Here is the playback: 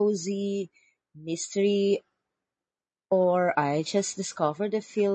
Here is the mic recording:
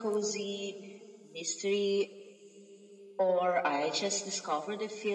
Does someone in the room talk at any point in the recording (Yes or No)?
No